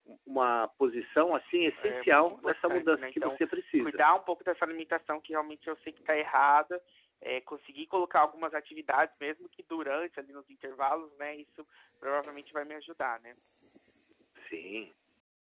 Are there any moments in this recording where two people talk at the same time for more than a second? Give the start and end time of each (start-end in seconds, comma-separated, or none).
1.8-3.4